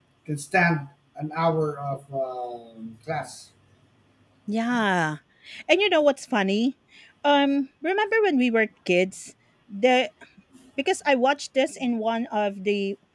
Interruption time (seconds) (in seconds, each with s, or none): none